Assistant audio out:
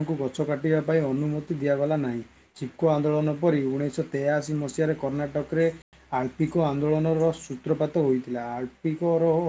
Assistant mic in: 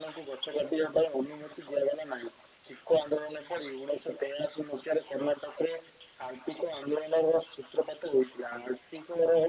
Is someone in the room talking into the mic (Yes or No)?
No